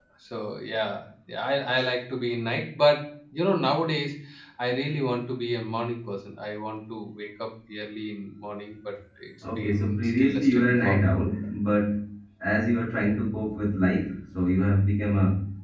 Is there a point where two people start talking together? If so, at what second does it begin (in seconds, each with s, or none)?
9.4 s